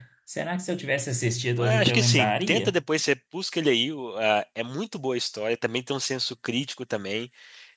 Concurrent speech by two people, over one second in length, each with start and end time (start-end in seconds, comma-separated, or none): 1.6-2.8